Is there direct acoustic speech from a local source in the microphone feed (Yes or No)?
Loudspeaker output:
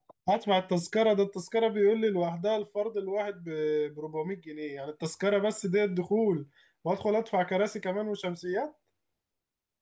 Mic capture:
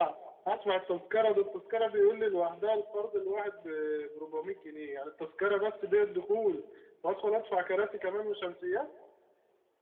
No